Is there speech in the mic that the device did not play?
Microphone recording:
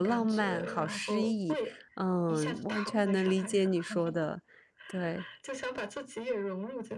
Yes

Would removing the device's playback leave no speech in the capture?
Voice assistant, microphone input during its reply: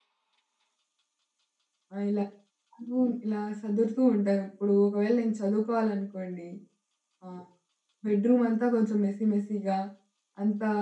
No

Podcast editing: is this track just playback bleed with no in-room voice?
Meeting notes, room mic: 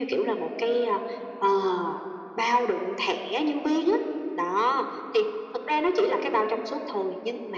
Yes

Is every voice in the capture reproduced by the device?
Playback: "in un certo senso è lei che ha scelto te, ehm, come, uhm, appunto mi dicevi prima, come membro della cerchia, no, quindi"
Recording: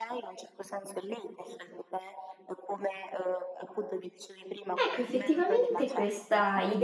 No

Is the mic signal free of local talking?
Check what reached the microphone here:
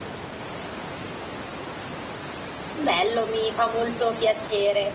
No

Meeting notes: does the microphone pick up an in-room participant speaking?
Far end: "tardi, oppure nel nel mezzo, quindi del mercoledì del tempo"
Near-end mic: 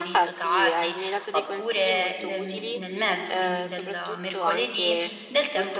Yes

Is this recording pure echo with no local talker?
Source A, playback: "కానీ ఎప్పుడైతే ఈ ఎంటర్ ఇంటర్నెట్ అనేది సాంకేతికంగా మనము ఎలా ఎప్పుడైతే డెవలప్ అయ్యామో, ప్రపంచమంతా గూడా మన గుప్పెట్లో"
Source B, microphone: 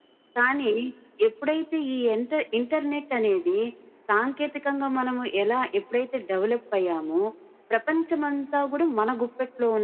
Yes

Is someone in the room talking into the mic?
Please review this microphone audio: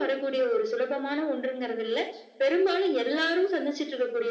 No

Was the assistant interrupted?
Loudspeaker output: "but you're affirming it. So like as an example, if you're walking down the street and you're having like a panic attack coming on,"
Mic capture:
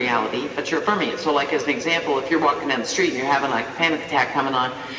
No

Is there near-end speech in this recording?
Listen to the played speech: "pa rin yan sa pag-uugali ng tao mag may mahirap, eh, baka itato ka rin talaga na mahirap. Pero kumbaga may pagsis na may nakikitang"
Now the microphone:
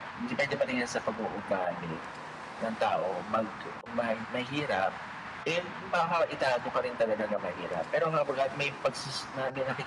No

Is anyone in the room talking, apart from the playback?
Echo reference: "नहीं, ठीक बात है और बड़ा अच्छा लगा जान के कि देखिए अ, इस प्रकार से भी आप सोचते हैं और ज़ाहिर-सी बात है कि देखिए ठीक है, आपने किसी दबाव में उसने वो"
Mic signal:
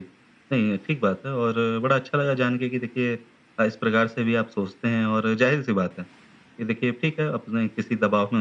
No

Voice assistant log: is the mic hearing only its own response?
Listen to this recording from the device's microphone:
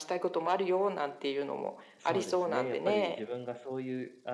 No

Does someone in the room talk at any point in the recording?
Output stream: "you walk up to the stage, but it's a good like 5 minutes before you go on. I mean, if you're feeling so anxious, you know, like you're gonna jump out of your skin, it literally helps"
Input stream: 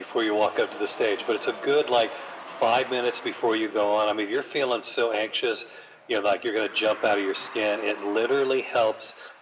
No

